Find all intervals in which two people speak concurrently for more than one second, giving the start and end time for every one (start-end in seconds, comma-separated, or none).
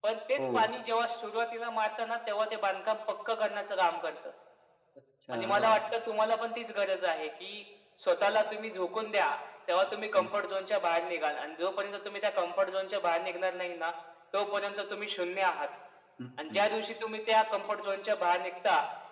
none